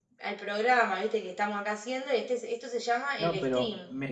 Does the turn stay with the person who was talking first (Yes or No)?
No